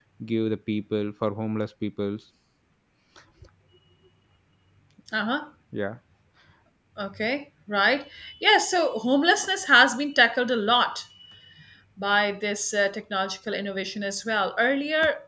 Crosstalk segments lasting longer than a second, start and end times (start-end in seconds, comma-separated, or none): none